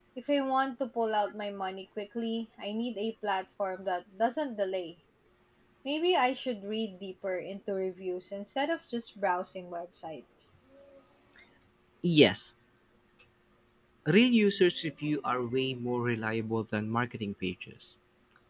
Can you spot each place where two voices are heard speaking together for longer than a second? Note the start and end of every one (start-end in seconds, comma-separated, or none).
none